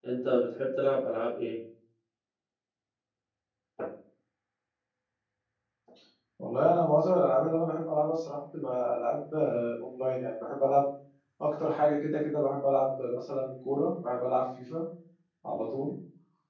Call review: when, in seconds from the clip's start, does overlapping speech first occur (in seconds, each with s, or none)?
none